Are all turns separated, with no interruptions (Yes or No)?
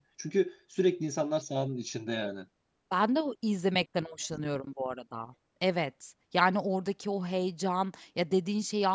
Yes